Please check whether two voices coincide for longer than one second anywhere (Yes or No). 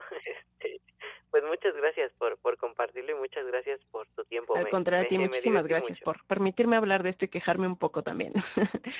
Yes